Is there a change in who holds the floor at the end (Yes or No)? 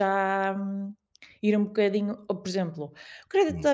No